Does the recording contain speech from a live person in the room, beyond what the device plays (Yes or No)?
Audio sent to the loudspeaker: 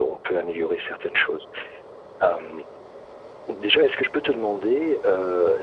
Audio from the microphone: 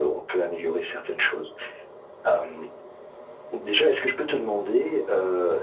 No